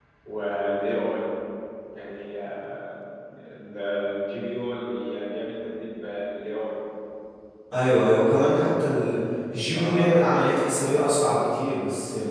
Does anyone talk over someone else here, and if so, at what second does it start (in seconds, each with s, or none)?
9.7 s